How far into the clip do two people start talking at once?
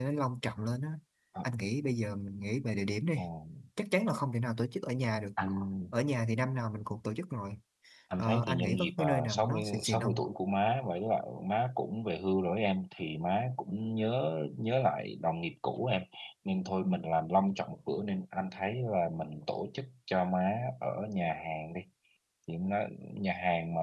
8.2 s

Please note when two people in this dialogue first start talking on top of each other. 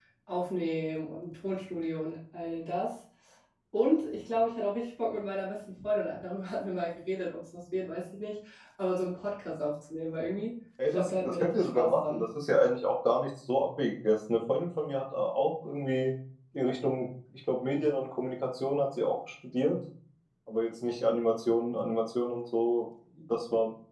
10.8 s

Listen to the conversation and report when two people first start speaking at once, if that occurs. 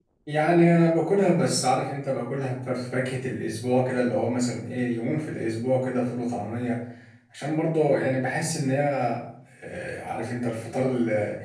none

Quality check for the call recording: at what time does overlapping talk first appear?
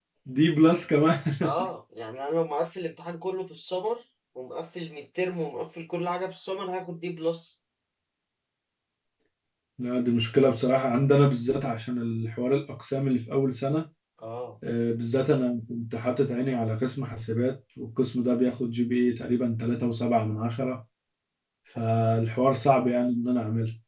none

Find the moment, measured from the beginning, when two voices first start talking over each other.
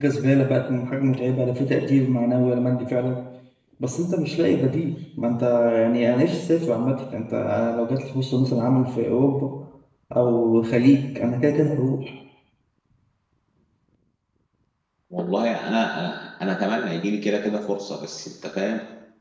none

